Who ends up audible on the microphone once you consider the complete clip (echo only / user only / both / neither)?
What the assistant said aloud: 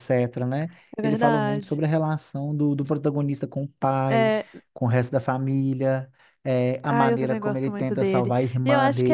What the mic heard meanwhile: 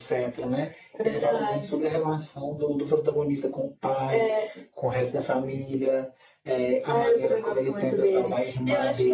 echo only